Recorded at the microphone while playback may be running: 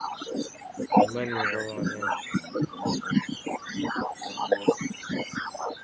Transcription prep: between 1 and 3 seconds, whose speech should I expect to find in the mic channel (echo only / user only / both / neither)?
both